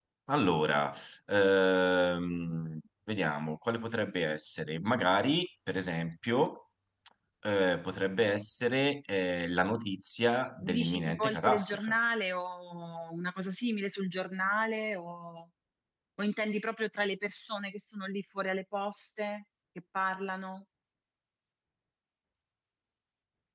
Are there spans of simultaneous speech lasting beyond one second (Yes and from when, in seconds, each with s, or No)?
Yes, from 10.6 s